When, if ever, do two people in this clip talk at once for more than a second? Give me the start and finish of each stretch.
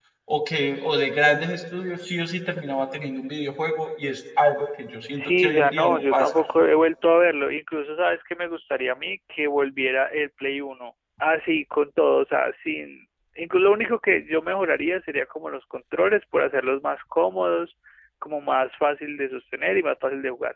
5.1-6.4

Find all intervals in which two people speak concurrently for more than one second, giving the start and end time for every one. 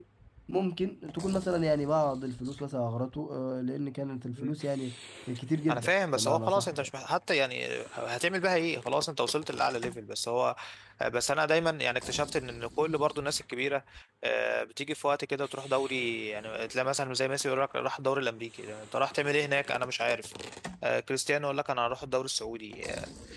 5.7-6.9

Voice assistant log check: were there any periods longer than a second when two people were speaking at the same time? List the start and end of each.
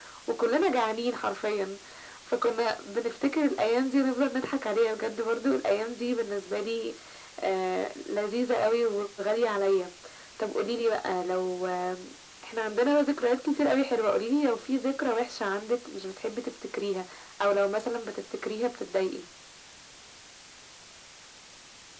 none

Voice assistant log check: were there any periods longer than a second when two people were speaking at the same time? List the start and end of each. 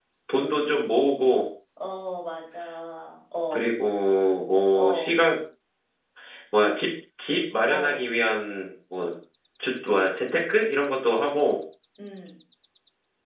none

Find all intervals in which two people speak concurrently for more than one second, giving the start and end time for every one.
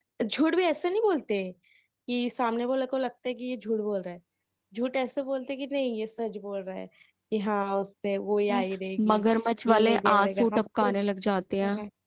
9.7-10.9

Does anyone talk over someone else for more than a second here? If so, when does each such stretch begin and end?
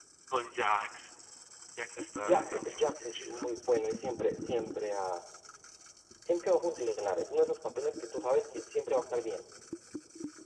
2.2-3.5

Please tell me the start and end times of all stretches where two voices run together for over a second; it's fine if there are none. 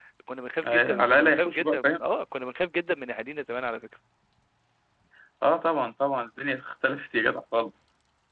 0.7-1.9

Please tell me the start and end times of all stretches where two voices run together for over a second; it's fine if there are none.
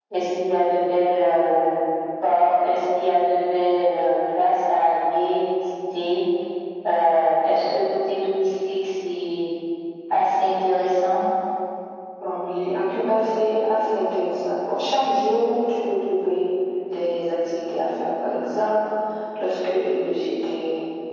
none

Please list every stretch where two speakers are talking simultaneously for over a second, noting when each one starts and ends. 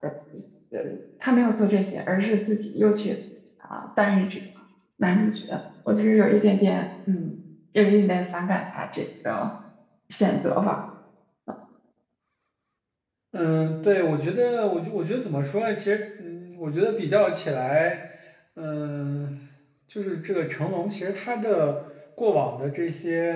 none

